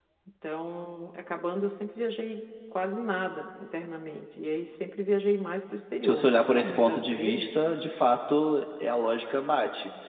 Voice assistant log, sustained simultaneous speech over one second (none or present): present